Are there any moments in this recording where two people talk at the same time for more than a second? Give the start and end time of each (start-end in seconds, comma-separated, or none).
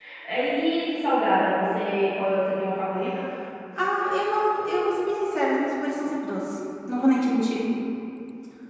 none